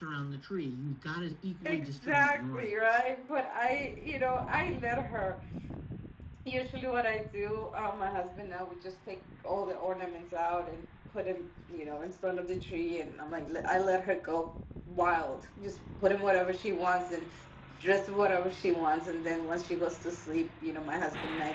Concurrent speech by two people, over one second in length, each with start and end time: 1.6-3.0

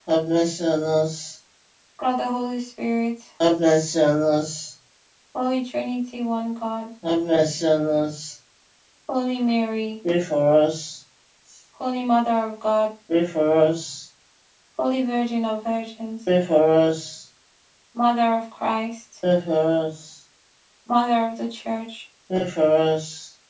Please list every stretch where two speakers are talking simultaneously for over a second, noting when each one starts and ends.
none

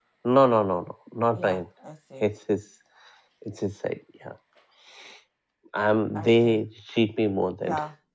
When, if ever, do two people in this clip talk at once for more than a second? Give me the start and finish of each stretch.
none

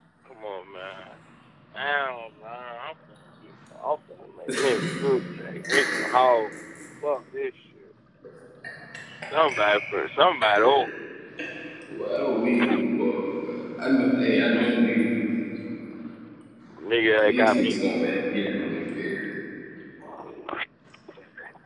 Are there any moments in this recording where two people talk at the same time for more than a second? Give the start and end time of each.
17.2-18.5

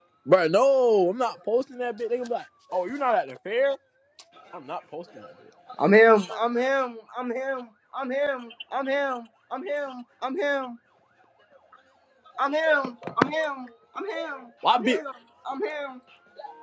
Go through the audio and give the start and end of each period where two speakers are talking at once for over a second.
none

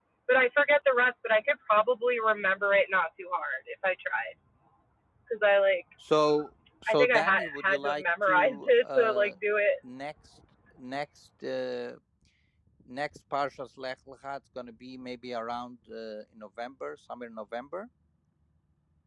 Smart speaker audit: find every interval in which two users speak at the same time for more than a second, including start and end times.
6.9-9.3

